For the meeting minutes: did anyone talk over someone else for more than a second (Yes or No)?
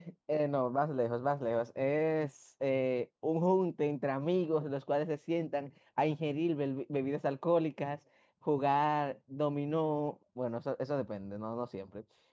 No